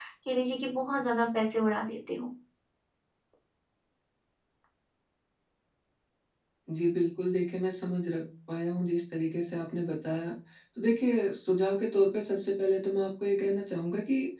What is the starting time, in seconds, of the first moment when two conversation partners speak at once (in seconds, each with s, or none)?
none